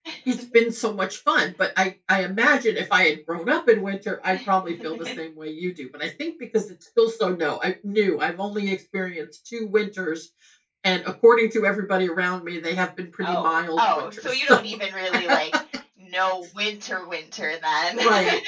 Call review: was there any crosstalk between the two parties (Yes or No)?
Yes